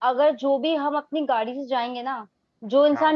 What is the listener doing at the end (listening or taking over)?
listening